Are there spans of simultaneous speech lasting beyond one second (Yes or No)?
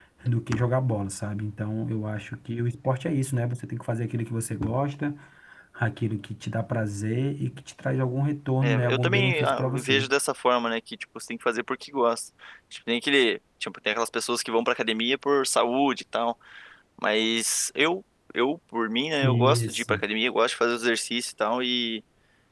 Yes